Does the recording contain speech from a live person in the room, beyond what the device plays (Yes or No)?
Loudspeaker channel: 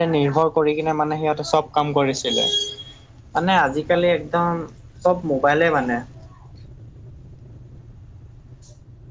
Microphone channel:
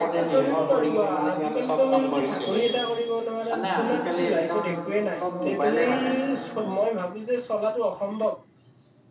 Yes